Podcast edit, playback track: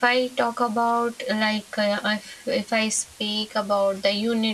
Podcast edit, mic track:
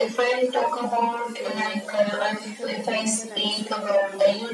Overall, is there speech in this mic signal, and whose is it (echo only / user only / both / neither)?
both